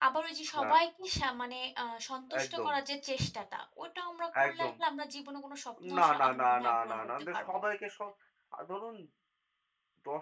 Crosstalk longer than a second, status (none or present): present